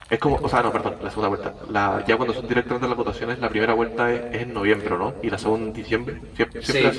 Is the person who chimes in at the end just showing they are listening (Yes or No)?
No